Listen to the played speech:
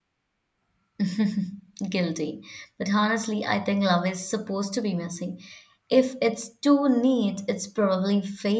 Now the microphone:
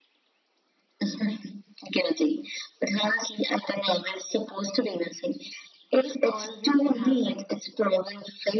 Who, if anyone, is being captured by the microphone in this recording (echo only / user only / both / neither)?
both